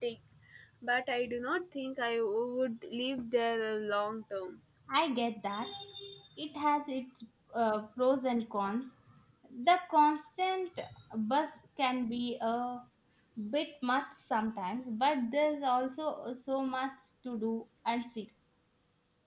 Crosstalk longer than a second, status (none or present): none